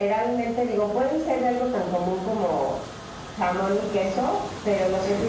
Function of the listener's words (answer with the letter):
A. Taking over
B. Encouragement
B